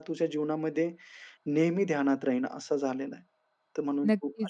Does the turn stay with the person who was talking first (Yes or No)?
No